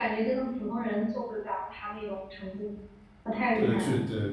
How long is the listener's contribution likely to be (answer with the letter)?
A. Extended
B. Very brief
A